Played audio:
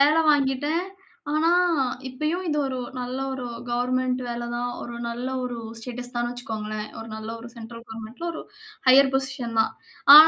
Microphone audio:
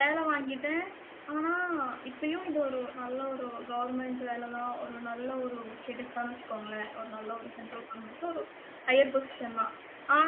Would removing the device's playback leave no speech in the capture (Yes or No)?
Yes